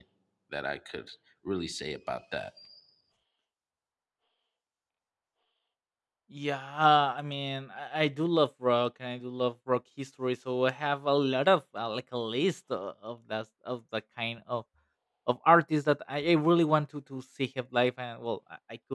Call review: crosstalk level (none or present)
none